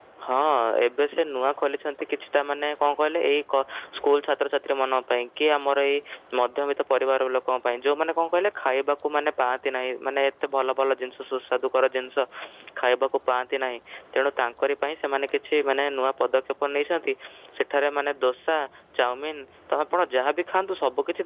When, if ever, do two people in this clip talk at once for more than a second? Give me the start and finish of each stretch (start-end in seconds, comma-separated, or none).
none